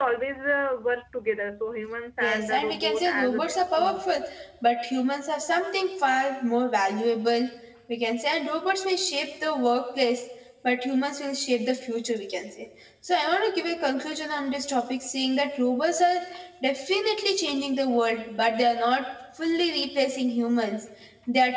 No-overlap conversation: No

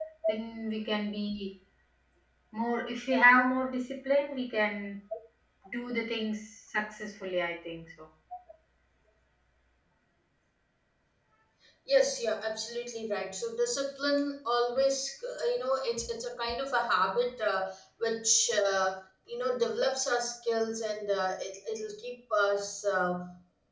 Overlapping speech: No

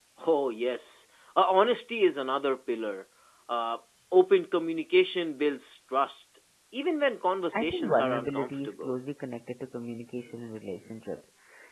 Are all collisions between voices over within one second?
No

